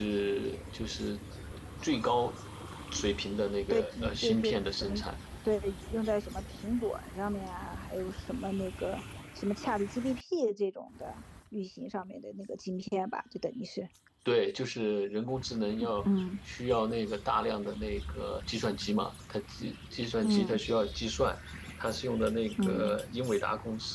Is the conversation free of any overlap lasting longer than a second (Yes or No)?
No